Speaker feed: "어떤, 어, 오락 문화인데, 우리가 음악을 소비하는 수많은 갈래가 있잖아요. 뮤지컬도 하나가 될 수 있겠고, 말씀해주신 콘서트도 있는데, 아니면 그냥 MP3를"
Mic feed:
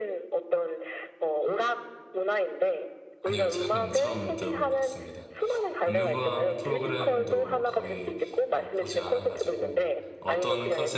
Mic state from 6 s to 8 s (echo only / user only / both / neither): both